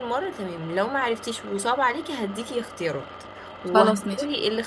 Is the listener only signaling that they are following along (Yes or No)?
Yes